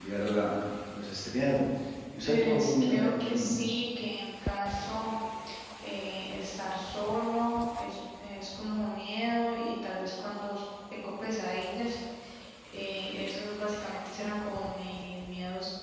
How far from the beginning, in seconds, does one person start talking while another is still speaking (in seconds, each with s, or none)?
2.2 s